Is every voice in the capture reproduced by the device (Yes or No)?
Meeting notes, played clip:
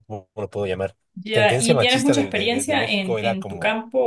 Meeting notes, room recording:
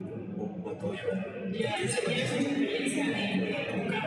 Yes